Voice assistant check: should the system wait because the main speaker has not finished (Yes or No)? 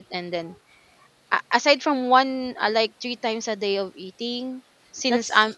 Yes